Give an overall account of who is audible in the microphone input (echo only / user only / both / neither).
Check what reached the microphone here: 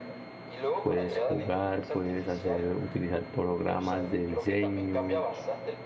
both